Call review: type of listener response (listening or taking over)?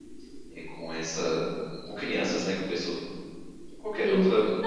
taking over